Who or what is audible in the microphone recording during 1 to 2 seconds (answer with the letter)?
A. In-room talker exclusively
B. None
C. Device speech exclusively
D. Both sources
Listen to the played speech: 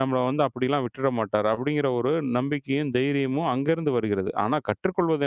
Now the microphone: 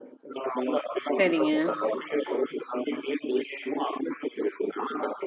D